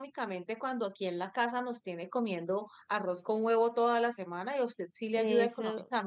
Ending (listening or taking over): taking over